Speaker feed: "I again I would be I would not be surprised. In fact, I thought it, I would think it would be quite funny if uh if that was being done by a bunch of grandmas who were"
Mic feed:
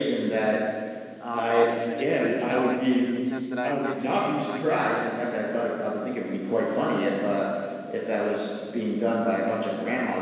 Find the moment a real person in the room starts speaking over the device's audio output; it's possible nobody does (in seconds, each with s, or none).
1.2 s